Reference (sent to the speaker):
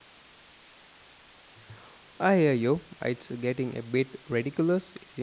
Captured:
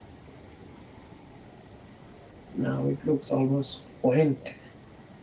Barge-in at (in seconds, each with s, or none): 2.5 s